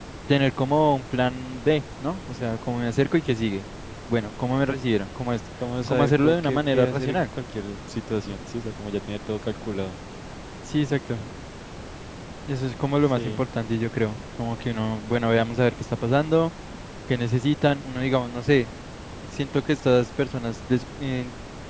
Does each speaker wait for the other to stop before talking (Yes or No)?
No